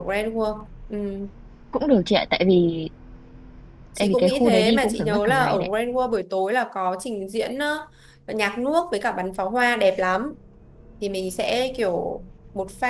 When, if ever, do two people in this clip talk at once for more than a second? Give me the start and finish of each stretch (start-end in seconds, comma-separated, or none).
4.0-5.7